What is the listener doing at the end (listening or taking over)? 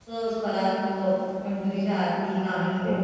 taking over